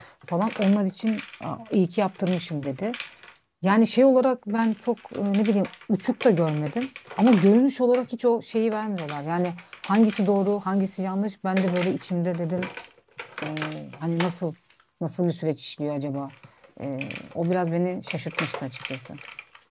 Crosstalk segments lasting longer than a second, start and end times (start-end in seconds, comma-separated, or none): none